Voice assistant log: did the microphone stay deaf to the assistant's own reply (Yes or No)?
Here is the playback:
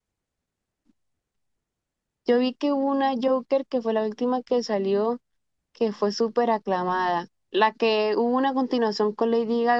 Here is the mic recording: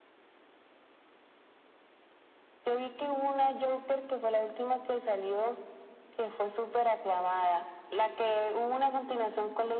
No